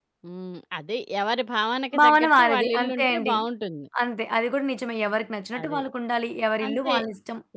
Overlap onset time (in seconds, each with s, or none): 2.0 s